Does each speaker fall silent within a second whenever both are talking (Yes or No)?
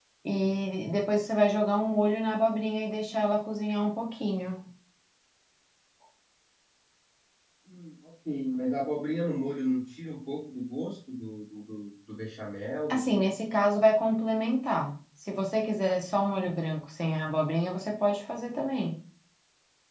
Yes